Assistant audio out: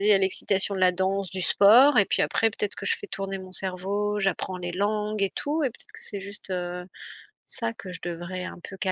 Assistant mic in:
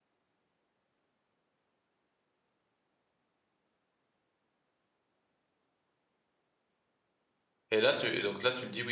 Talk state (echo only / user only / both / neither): user only